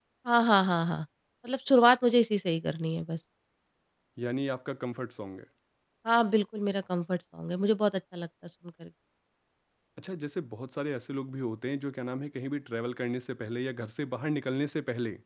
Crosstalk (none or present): none